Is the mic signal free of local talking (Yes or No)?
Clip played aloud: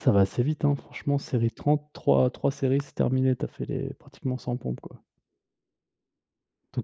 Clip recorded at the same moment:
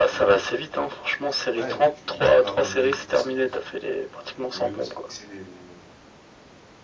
No